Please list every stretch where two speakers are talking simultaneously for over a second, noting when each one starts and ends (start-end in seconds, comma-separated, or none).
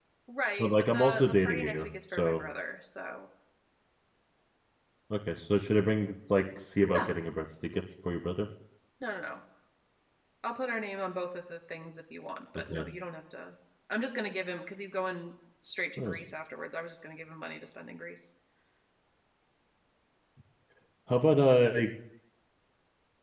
0.6-2.4